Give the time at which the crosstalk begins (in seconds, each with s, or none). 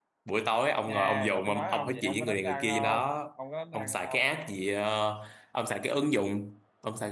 0.9 s